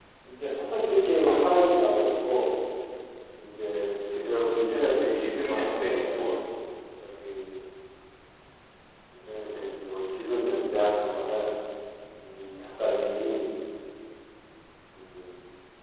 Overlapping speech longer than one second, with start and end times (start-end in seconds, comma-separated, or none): 5.1-6.4